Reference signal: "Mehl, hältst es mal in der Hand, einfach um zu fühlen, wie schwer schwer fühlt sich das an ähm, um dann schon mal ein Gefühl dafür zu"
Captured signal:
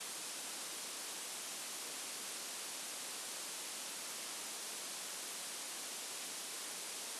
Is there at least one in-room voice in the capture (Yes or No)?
No